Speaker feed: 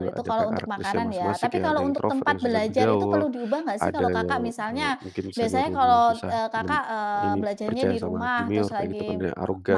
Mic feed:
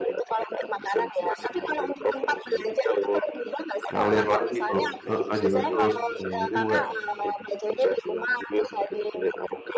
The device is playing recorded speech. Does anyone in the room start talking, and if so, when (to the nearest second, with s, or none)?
4 s